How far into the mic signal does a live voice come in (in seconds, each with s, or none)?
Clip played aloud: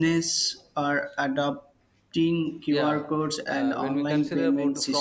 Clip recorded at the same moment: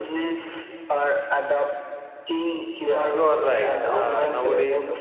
3.1 s